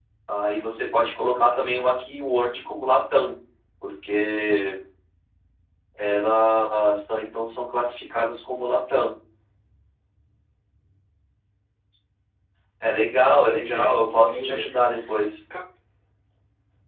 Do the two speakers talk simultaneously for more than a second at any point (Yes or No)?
Yes